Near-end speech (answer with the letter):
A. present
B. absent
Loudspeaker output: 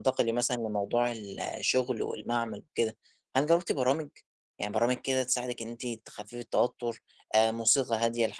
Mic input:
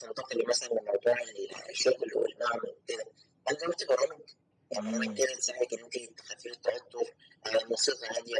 A